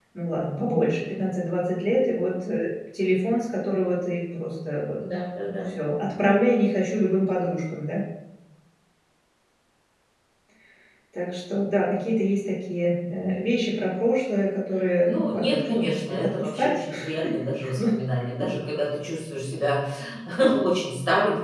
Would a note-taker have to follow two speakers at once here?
Yes, from 15.0 s

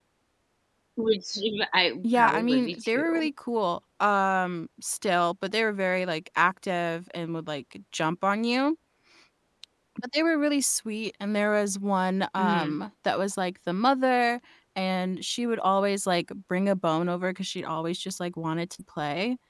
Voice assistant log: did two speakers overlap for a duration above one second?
Yes, from 2.0 s

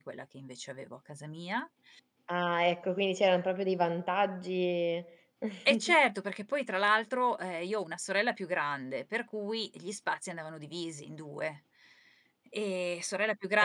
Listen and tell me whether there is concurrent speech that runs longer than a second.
No

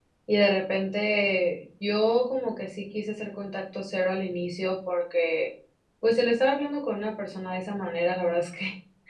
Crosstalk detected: No

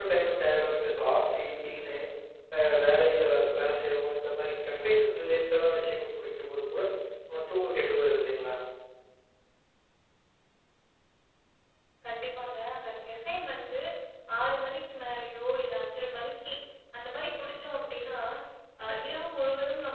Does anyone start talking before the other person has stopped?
No

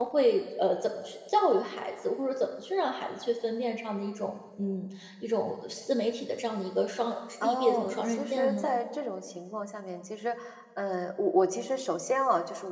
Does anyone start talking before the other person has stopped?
Yes, from 7.4 s

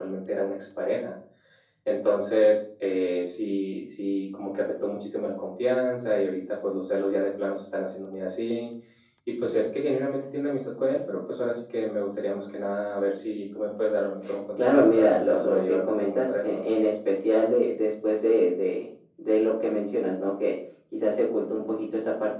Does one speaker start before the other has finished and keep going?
Yes, from 14.6 s

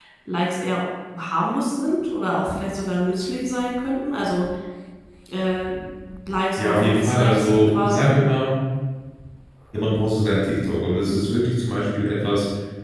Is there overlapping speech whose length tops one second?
Yes, from 6.6 s

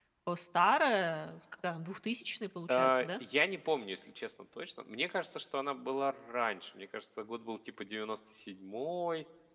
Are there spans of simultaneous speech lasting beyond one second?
No

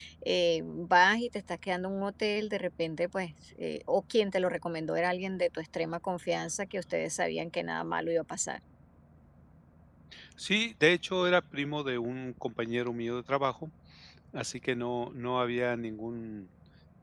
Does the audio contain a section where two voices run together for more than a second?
No

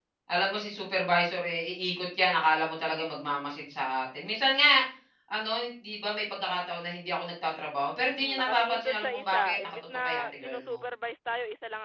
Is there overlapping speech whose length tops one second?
Yes, from 8.2 s

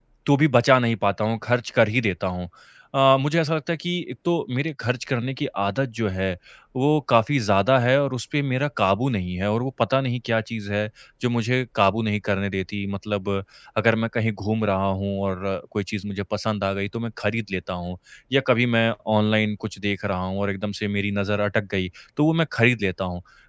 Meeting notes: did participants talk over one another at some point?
No

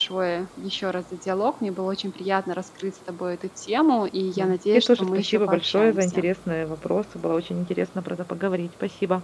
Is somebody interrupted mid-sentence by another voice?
Yes, from 4.4 s

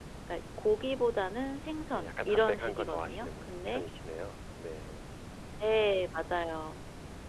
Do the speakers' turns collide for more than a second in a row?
Yes, from 1.9 s

